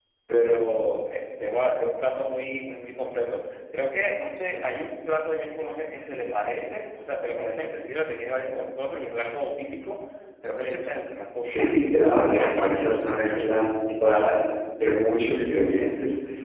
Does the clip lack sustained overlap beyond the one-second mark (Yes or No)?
No